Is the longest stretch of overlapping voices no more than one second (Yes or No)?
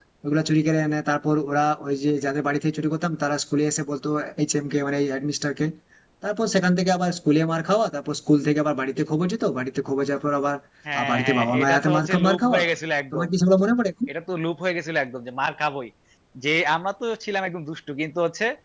No